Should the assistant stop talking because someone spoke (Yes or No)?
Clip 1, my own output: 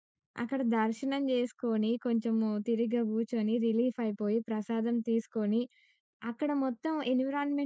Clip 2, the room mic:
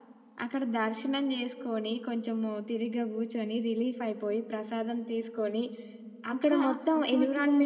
Yes